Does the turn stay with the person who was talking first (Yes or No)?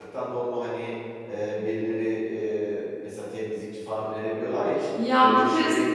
No